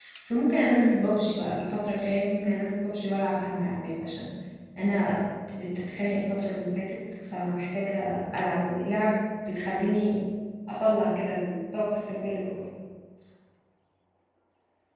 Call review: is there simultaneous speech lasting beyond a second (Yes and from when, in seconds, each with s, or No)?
No